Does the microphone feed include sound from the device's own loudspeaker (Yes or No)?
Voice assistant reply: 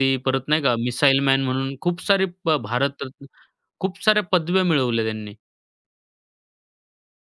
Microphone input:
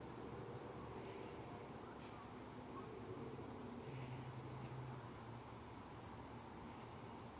No